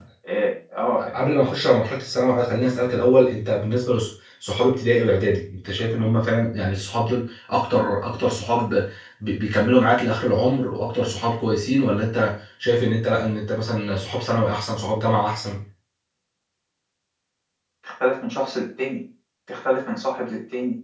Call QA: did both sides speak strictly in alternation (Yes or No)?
Yes